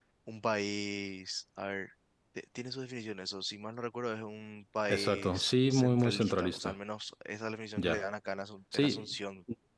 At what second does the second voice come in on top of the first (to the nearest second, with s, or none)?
5 s